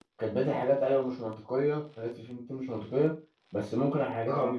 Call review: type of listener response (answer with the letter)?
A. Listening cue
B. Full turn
A